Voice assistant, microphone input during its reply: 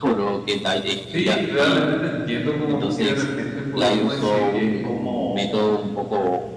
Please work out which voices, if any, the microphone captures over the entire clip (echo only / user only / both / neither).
both